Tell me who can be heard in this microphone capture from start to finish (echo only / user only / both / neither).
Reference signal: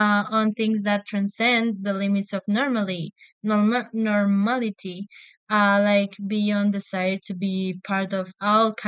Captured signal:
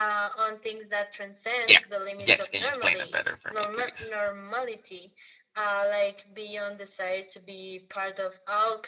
both